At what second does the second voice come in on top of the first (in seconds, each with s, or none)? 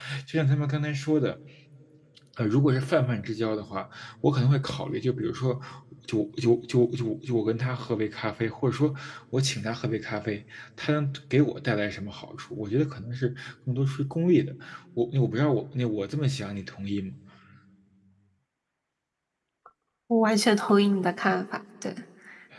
none